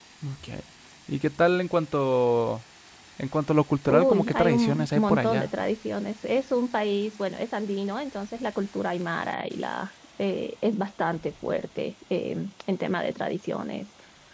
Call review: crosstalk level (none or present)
present